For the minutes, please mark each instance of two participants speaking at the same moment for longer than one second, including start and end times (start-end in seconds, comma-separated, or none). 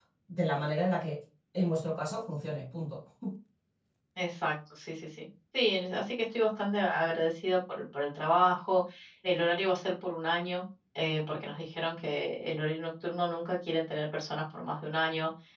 none